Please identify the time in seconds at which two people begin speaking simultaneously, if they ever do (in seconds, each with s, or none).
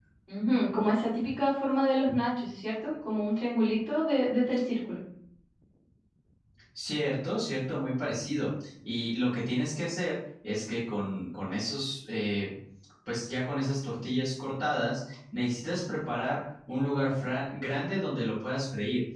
none